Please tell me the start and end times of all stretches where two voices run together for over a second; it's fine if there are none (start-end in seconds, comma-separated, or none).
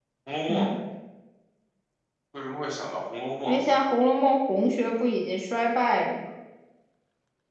none